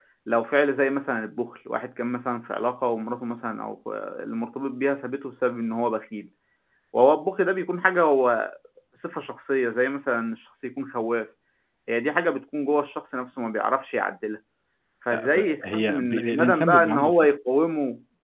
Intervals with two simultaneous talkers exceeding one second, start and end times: 15.1-17.3

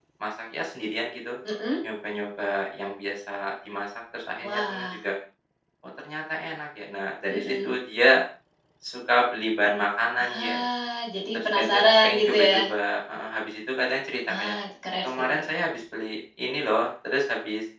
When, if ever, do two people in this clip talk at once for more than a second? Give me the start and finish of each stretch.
11.3-12.6

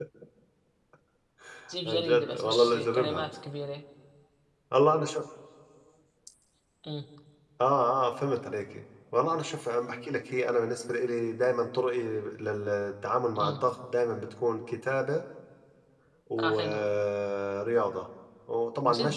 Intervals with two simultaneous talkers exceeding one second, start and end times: 1.9-3.2

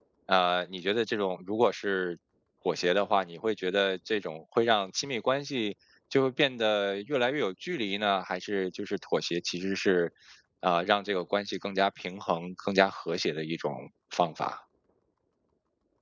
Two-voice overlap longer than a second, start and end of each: none

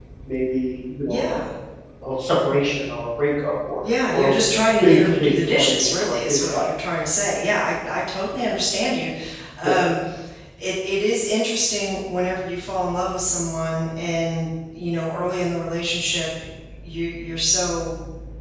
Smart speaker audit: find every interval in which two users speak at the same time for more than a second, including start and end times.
4.8-6.7

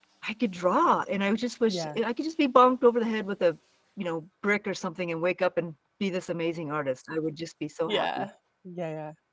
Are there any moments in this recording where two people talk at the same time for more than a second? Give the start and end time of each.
none

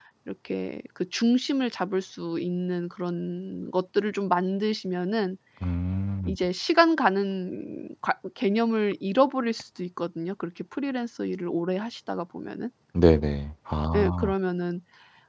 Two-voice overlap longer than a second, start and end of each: none

